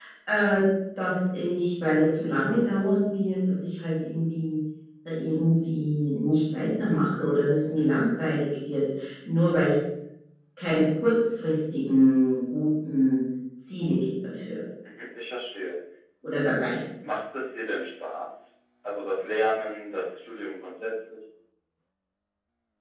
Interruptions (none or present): none